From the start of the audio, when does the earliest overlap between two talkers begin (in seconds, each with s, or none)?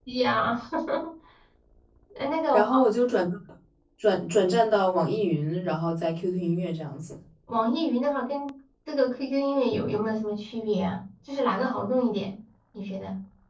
none